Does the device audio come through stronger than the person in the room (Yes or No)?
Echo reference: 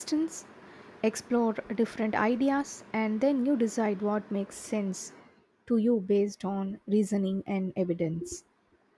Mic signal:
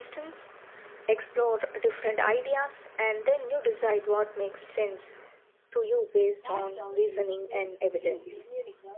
Yes